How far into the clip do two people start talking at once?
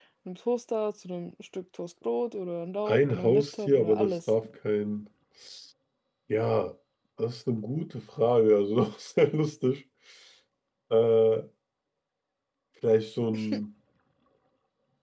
3 s

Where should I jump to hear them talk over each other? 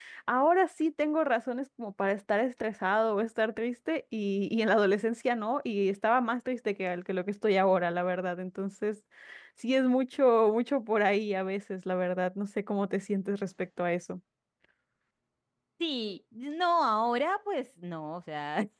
none

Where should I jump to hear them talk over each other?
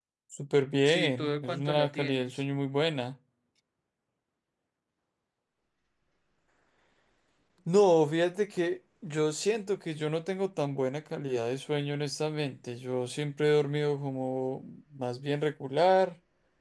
1 s

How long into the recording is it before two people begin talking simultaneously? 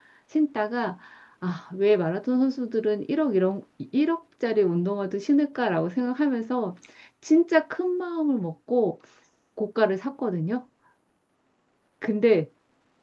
none

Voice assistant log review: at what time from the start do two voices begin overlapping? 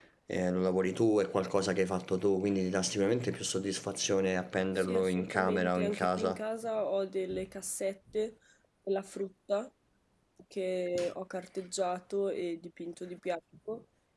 5 s

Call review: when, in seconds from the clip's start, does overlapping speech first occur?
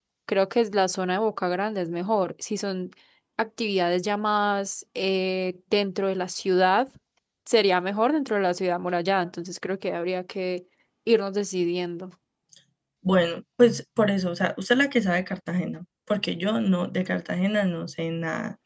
none

